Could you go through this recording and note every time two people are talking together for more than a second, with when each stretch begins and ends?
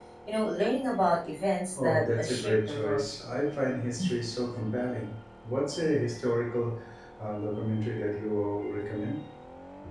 1.8-3.1

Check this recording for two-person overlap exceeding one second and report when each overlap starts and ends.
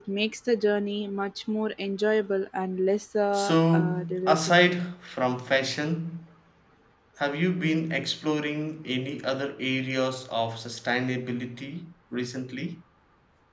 3.3-4.6

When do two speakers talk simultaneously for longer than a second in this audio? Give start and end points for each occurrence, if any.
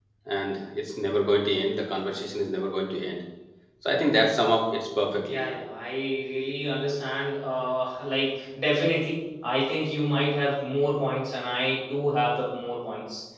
none

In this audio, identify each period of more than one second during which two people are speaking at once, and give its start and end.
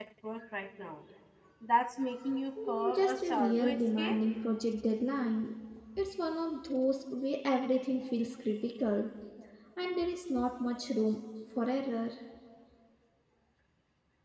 2.7-4.2

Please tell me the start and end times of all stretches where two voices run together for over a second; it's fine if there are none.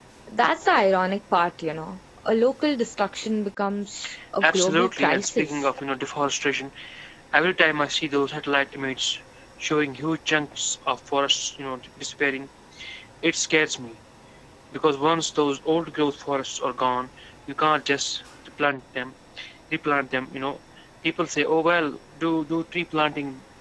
4.4-5.7

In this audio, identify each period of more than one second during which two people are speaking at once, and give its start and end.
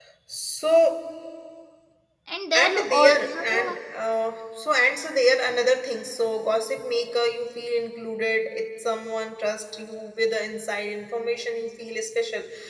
2.5-3.8

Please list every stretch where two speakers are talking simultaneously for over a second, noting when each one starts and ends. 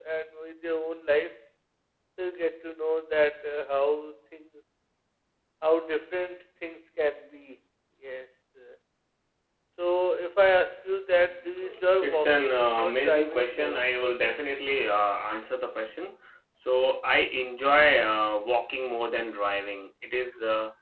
12.0-13.8

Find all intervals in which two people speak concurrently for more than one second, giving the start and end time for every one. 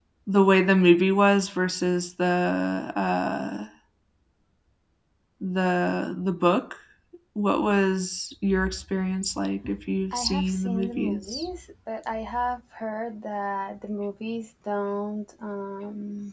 10.1-11.5

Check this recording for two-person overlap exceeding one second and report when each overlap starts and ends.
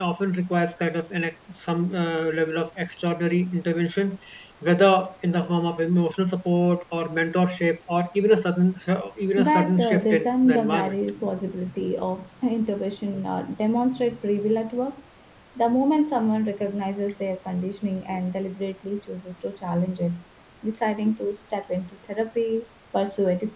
9.4-11.0

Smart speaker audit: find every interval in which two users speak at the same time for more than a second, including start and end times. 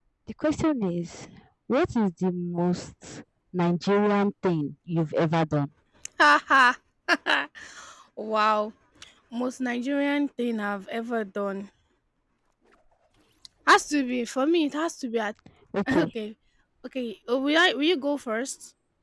none

